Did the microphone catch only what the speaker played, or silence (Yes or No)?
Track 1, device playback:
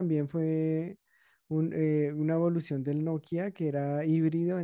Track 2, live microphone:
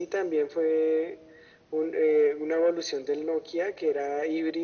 Yes